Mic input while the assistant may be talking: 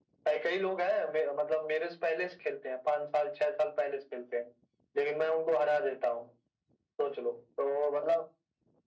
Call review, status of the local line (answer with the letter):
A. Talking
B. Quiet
B